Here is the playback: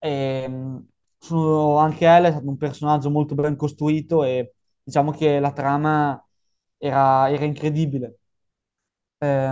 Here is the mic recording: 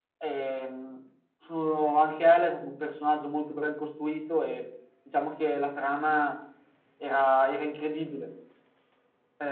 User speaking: No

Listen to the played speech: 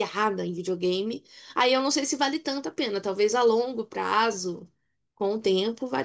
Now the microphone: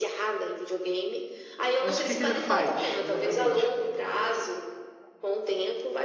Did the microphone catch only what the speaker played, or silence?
No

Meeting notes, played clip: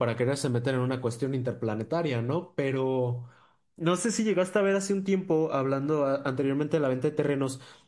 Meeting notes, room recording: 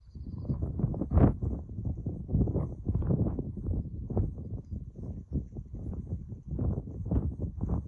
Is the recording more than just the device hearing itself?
No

